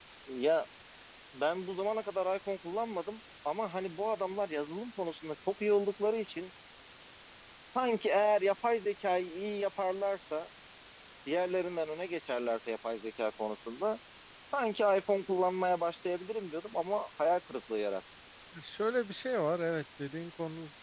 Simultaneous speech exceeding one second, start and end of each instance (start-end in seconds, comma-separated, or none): none